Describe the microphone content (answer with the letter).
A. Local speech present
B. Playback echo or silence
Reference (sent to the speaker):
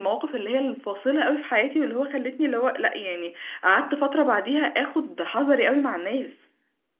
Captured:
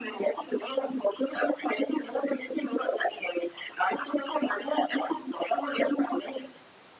B